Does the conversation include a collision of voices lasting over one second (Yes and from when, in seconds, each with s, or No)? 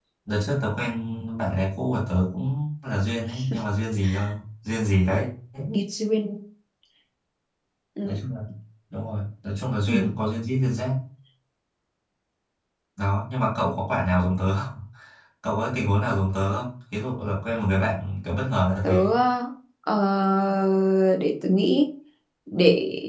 No